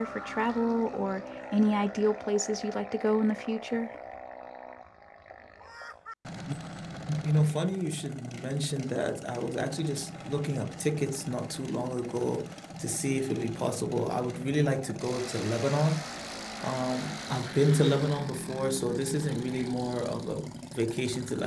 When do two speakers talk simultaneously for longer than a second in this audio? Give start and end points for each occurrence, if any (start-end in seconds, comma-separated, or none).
none